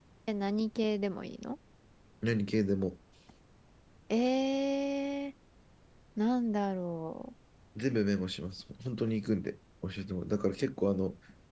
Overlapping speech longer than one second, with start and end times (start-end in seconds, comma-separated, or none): none